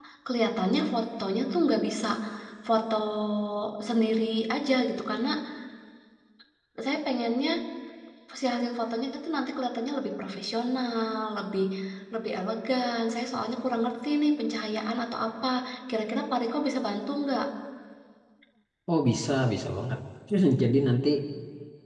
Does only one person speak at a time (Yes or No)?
Yes